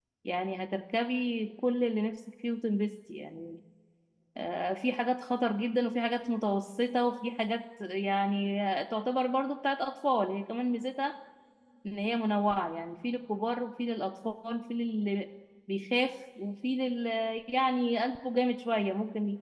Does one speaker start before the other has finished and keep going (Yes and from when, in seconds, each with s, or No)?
No